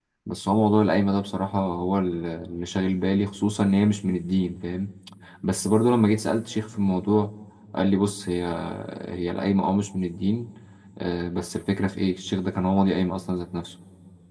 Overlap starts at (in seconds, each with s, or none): none